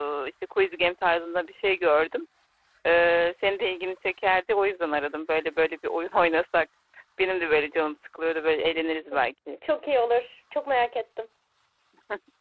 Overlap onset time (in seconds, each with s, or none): none